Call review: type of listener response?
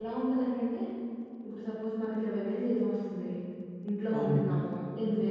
listening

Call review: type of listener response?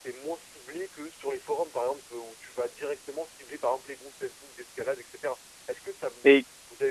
listening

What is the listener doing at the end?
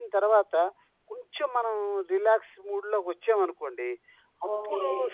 listening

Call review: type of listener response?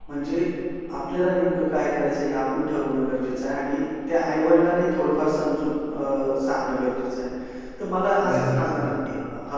listening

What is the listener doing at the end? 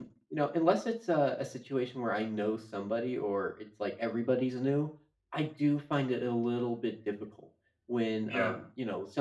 listening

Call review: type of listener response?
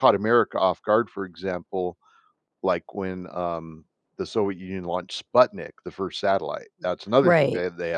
listening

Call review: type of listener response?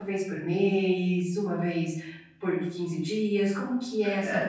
taking over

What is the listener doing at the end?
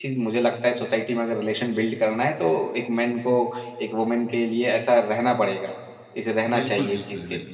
taking over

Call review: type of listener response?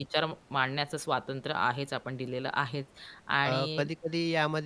taking over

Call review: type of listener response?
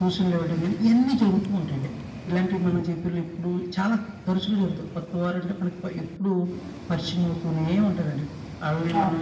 listening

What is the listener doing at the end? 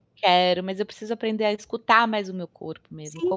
taking over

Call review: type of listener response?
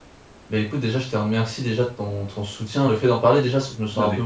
listening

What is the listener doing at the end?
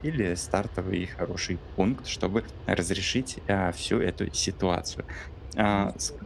listening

